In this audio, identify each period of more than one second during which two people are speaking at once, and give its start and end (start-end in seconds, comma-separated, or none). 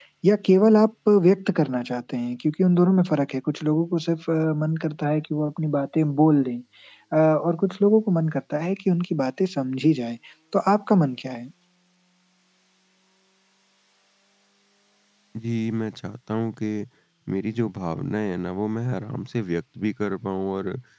none